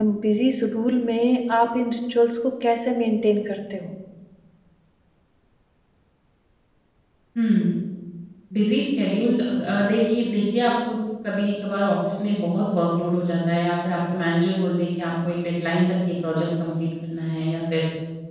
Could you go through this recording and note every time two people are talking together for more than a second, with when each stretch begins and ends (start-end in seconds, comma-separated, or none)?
none